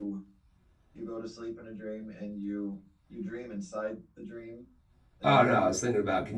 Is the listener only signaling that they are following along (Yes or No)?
No